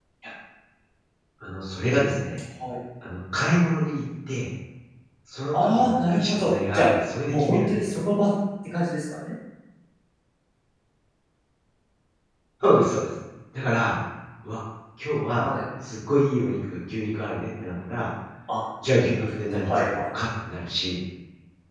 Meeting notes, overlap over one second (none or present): present